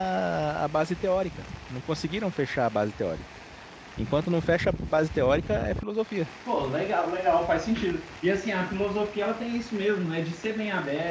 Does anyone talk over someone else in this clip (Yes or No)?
No